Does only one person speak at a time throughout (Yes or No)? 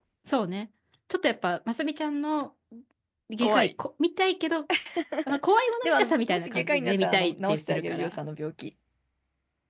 No